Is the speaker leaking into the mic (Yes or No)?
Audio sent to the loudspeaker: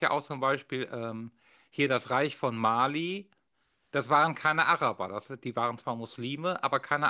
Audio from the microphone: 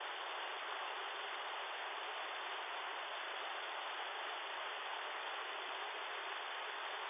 No